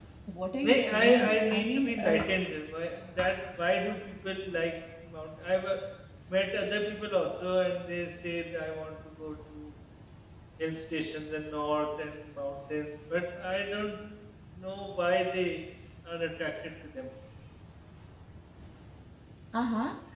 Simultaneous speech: Yes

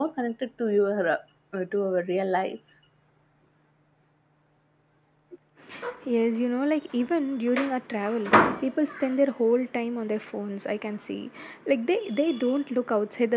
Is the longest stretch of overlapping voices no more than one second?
Yes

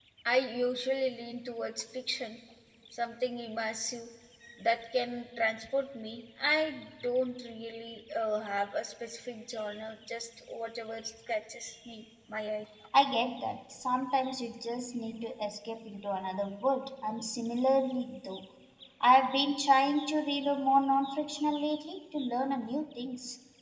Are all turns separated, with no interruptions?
Yes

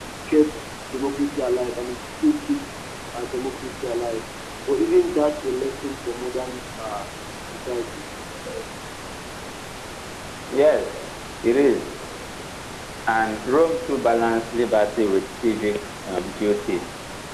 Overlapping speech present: No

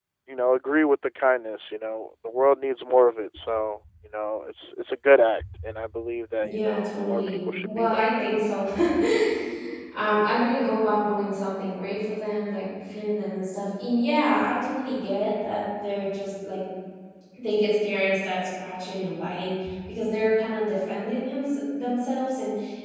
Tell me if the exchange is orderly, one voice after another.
No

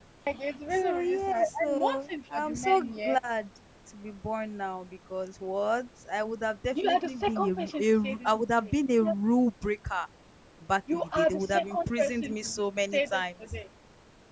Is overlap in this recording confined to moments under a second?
No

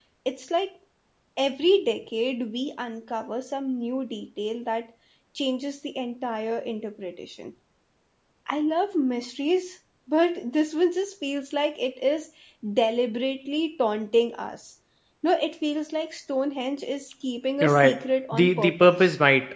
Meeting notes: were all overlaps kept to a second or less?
No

